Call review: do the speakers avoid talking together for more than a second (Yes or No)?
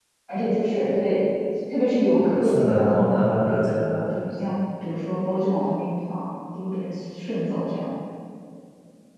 No